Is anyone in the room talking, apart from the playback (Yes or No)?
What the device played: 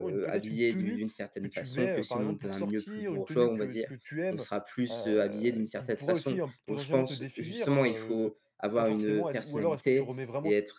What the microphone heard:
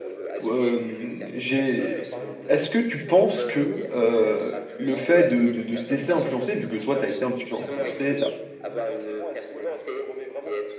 Yes